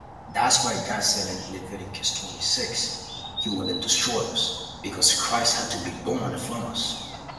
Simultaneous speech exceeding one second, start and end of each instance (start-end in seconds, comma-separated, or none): none